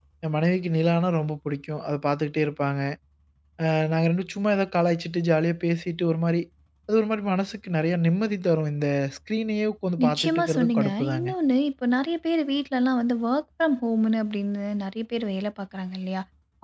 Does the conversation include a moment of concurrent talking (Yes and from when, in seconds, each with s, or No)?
Yes, from 10.0 s